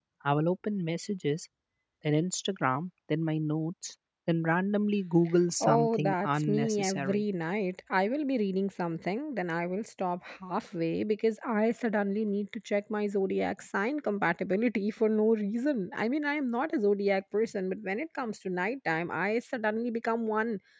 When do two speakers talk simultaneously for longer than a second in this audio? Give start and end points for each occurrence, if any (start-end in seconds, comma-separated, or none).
5.6-7.2